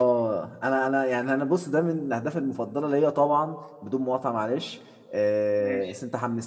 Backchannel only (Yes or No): Yes